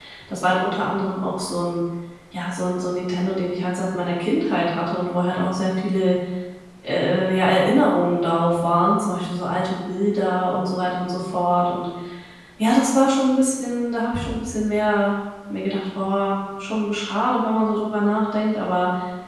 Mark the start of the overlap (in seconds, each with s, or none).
none